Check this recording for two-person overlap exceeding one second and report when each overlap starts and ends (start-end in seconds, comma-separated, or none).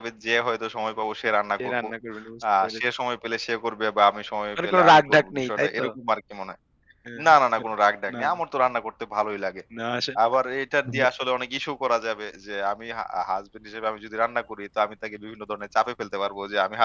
4.6-5.9